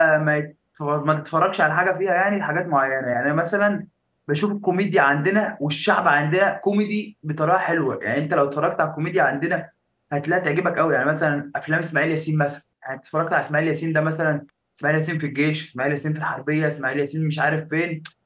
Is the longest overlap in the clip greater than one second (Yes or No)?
No